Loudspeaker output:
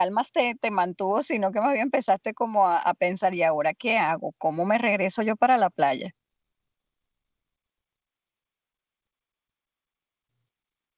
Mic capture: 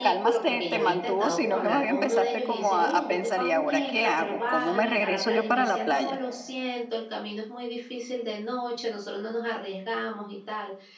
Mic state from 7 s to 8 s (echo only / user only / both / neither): user only